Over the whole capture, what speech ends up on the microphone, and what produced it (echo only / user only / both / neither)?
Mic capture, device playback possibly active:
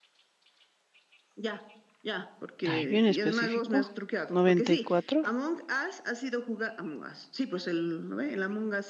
both